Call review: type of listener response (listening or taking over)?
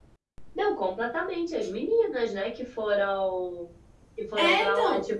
listening